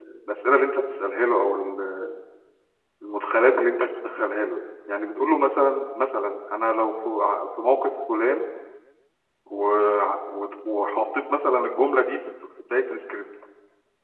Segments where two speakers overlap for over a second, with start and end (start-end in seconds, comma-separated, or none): none